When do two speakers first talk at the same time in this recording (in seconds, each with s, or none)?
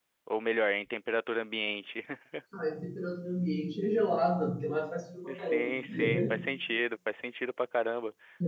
5.3 s